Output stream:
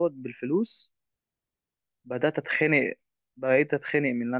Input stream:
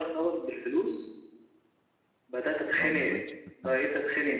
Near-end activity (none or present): present